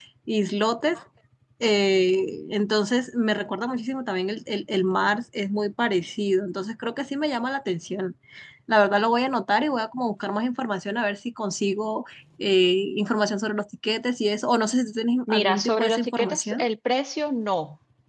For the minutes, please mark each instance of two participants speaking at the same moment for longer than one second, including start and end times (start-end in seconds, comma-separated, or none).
15.3-16.7